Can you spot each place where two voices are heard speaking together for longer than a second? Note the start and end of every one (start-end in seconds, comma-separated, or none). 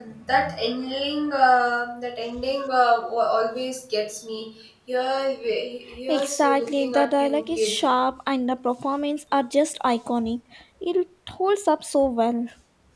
6.1-7.8